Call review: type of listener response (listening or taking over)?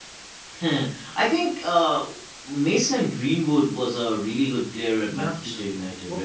taking over